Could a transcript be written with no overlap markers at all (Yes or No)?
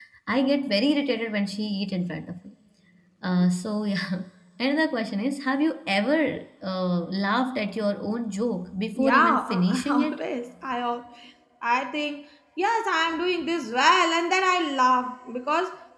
No